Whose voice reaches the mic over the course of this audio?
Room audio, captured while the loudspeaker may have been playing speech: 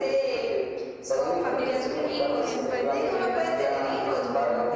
both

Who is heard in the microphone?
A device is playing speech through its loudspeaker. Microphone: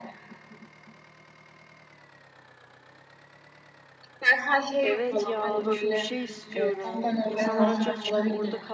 both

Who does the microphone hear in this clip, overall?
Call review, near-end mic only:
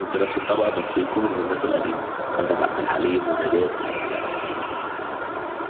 both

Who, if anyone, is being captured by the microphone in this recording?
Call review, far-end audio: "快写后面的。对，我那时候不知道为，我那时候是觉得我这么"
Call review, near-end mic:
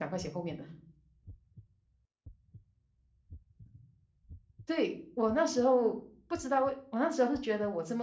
echo only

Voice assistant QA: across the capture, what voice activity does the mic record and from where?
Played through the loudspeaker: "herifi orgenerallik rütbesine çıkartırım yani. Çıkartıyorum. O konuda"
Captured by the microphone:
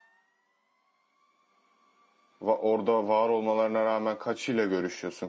user only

